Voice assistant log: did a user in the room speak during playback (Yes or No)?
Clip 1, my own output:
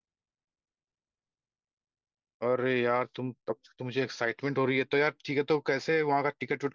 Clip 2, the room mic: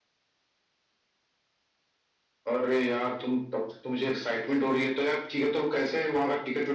No